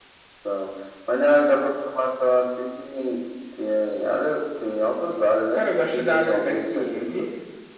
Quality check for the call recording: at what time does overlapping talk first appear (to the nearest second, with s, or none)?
6 s